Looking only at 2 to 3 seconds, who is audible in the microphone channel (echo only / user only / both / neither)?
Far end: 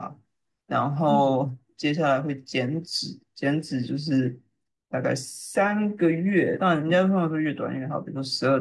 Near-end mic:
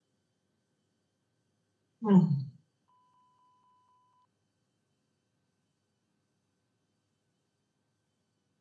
user only